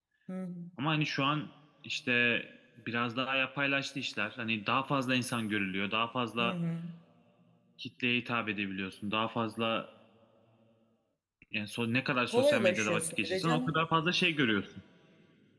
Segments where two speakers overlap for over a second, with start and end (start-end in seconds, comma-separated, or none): 12.3-13.8